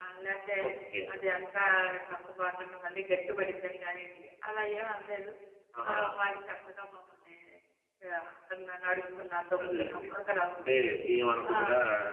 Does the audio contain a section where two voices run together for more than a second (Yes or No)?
No